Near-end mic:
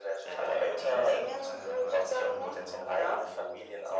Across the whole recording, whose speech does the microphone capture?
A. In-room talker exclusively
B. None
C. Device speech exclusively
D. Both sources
D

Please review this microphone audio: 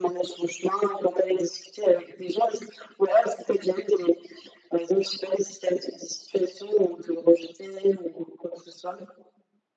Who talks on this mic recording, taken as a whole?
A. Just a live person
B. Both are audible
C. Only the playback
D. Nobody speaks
C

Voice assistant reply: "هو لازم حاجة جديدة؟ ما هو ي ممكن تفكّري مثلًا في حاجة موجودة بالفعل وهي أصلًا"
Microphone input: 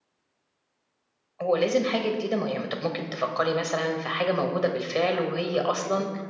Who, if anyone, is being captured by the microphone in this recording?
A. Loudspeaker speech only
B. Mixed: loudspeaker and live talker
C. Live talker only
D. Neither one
B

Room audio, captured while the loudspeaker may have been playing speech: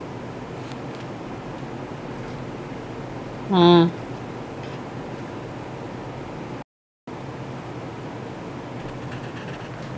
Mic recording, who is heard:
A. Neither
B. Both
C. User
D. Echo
C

